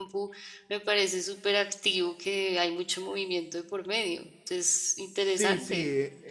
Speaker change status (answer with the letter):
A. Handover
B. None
A